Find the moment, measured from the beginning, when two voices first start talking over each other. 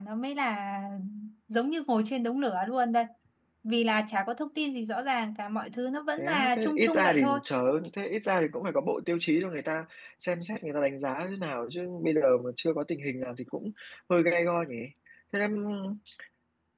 6 s

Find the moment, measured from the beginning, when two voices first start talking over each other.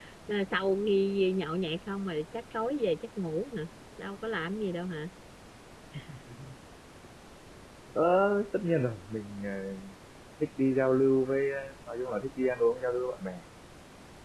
none

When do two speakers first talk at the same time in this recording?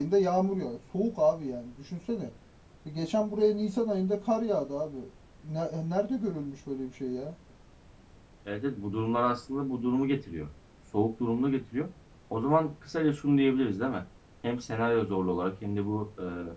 none

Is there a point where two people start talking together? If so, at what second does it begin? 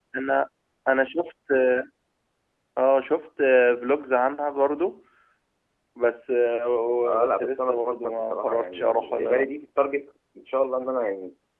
7 s

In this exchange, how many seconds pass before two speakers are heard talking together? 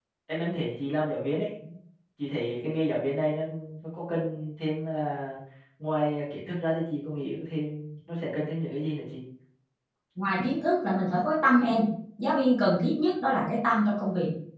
none

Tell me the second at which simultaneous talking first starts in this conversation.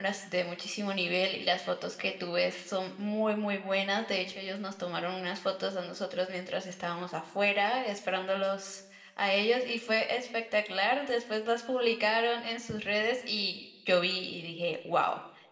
none

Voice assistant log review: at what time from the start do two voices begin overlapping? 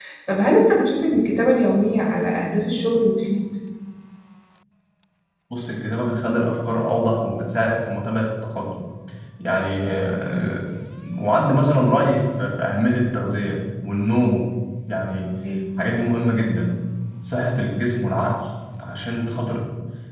none

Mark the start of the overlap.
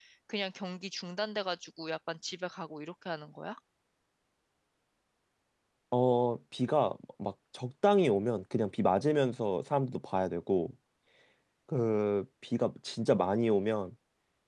none

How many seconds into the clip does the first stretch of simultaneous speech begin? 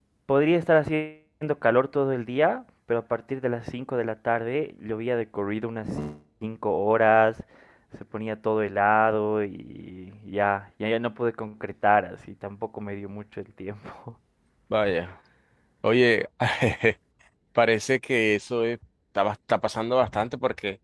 none

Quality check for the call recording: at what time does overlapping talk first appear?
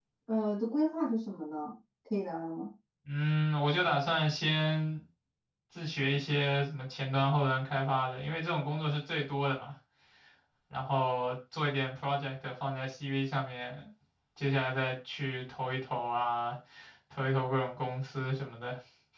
none

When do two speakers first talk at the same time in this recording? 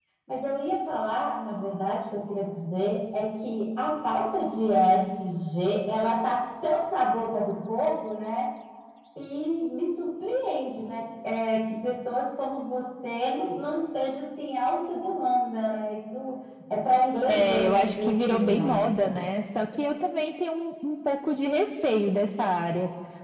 17 s

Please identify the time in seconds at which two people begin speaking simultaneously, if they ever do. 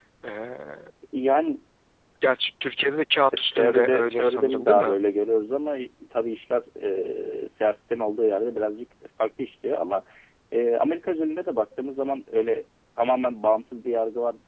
3 s

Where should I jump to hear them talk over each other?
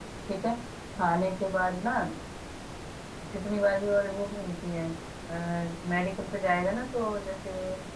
none

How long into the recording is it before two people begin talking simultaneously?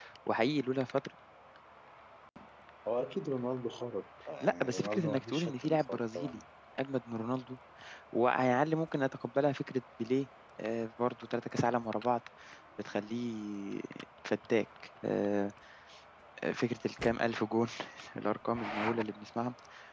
4 s

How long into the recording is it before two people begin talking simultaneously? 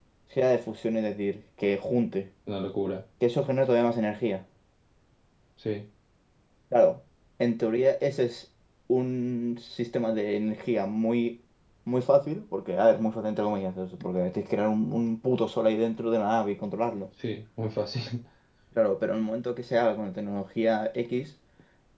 none

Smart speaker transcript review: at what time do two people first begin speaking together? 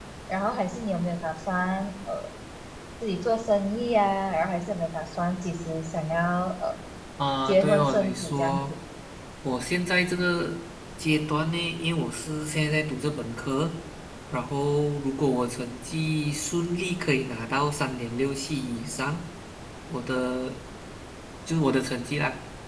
7 s

